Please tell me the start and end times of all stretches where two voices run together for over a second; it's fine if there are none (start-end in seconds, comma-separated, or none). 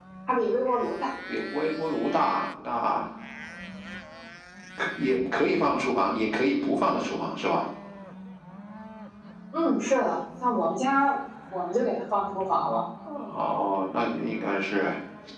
none